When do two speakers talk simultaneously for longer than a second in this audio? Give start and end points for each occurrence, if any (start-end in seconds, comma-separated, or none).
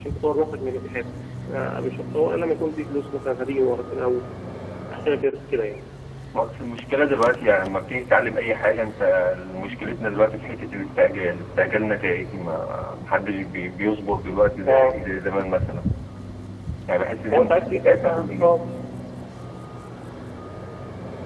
17.3-18.6